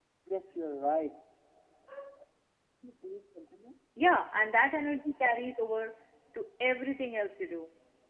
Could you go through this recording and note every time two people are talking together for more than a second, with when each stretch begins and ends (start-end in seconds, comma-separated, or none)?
none